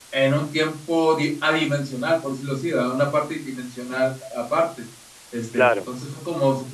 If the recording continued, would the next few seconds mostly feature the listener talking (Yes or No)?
No